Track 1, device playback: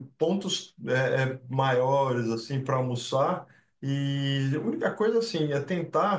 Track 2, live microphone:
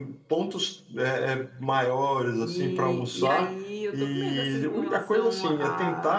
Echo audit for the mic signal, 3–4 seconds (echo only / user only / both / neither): both